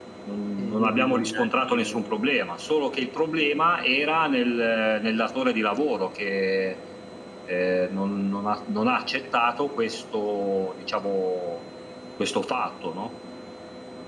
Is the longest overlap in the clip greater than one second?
Yes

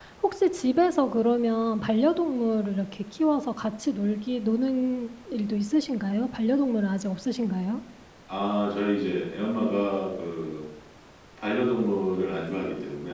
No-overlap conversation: Yes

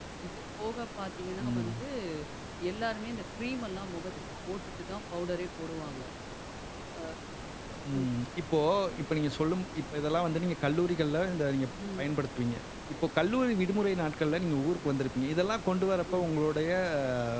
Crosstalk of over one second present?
No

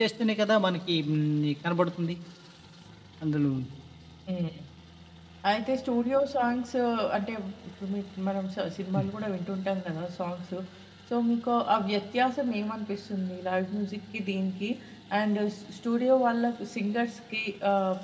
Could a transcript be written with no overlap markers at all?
Yes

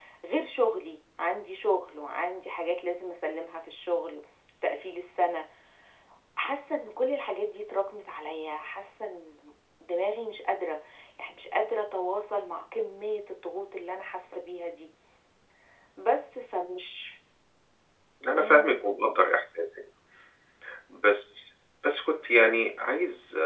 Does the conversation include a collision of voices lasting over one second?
No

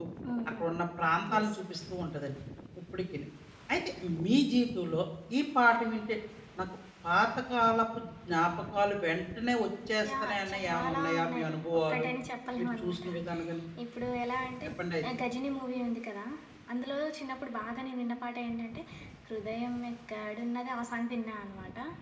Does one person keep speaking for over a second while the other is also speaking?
Yes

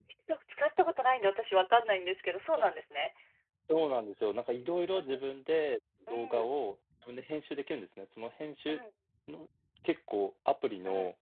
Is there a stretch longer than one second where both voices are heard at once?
No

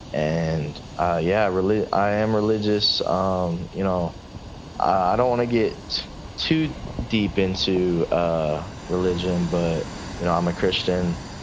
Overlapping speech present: No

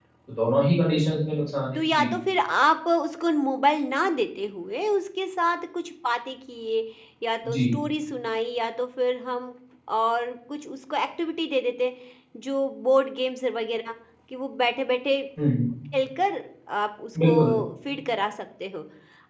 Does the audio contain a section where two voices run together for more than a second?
No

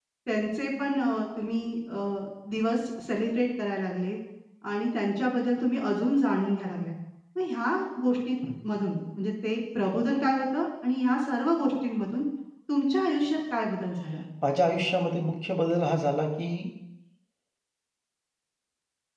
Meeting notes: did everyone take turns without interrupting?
Yes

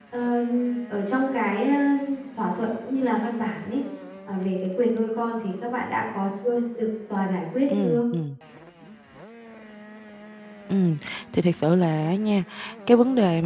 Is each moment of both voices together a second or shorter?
Yes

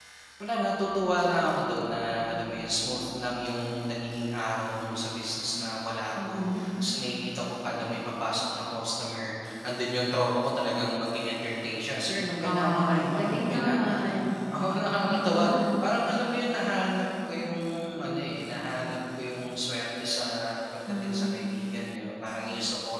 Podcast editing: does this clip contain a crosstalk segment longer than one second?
Yes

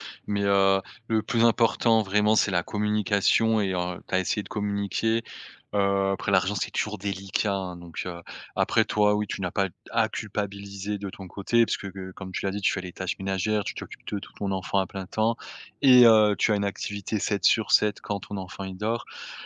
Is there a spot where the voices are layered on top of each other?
No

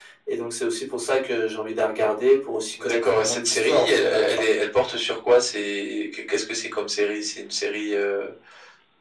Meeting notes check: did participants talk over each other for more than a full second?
Yes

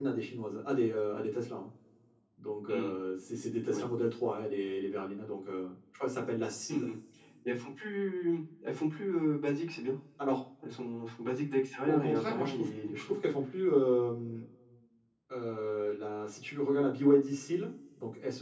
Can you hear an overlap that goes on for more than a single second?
Yes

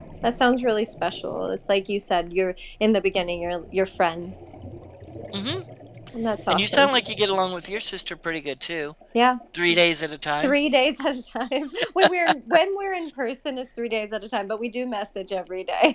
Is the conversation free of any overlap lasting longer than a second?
Yes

